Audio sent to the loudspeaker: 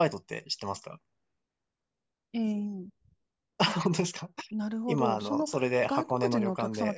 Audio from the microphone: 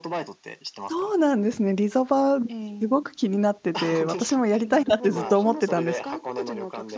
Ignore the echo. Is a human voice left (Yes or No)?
Yes